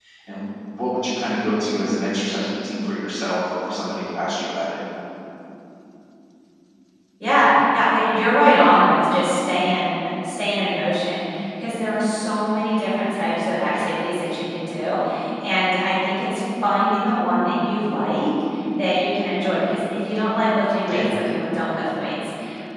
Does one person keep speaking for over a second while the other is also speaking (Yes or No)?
No